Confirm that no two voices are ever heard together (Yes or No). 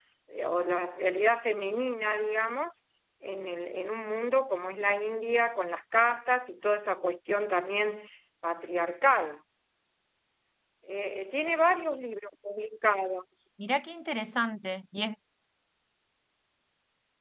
Yes